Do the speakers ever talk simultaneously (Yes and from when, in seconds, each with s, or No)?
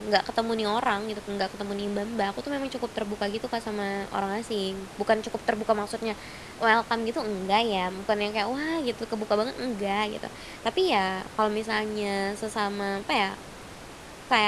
No